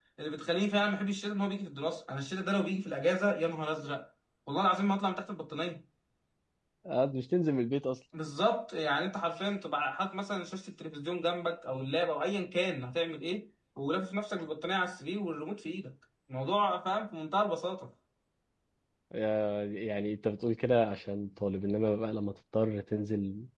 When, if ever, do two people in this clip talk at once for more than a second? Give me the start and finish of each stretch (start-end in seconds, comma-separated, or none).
none